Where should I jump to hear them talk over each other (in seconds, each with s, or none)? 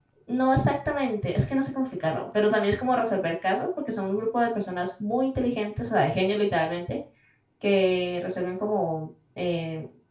none